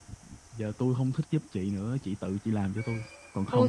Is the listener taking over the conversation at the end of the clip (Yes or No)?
Yes